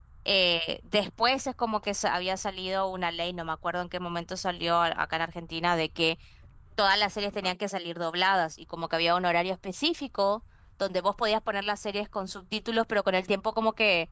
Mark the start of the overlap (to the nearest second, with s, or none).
none